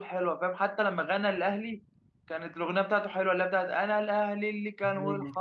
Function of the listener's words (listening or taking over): listening